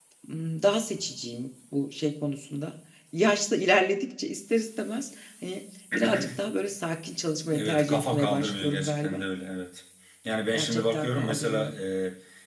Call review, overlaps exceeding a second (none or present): present